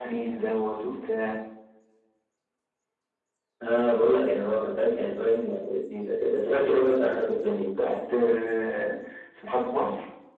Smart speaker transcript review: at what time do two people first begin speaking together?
none

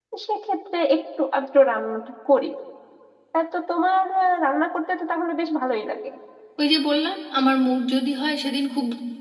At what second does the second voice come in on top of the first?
none

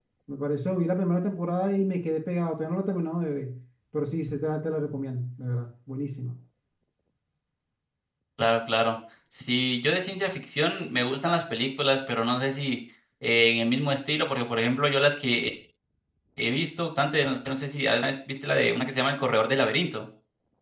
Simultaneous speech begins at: none

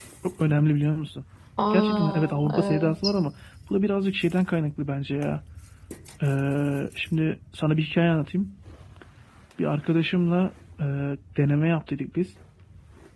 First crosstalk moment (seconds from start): 2 s

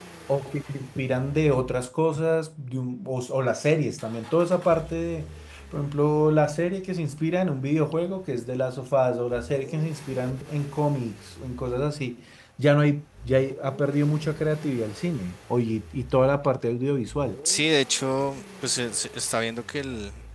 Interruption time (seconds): none

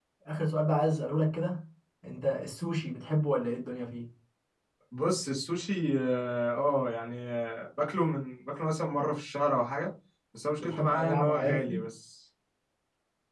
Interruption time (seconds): 11 s

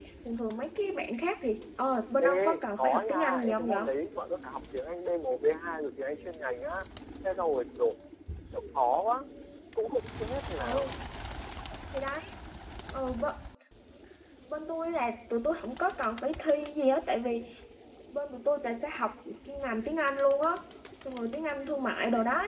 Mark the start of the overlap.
2 s

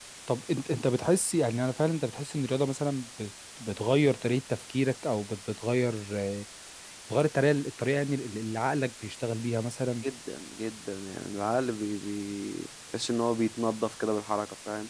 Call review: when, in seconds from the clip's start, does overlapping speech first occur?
none

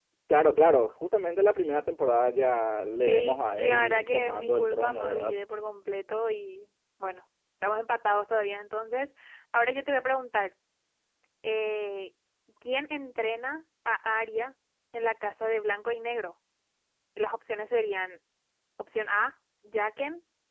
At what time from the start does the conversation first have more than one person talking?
3 s

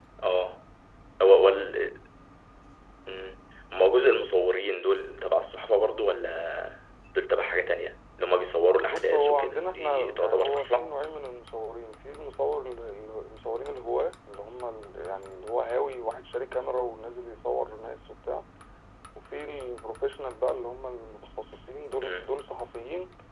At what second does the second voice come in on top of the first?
9 s

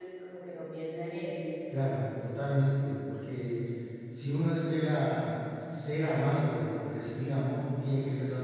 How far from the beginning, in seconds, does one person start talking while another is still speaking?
none

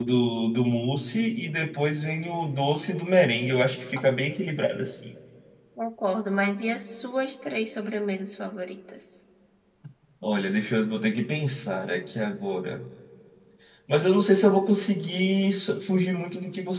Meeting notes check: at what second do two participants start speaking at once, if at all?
none

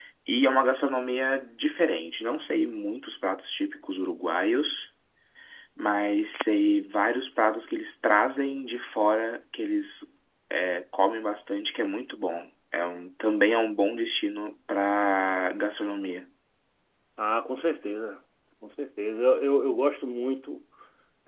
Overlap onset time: none

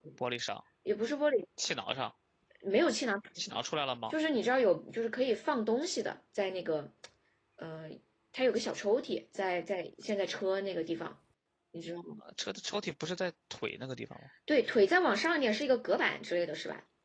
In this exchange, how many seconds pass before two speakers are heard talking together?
none

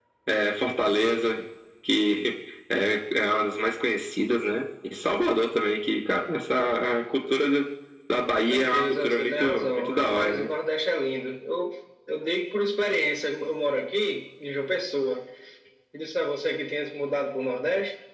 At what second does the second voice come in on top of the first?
8 s

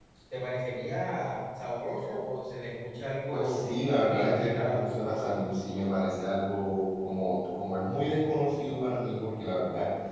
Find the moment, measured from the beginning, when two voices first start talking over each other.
3 s

